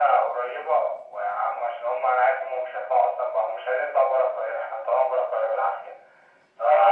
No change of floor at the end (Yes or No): No